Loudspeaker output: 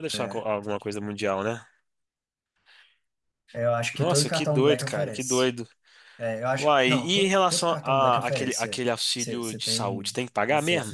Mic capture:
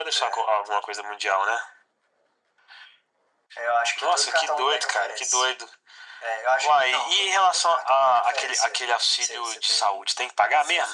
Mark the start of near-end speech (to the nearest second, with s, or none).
none